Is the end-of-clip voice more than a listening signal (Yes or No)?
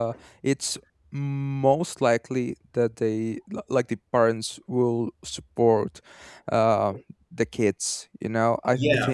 Yes